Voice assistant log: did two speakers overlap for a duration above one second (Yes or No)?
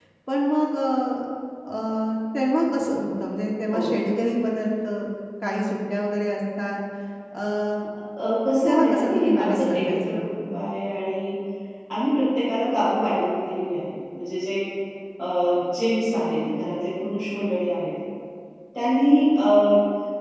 Yes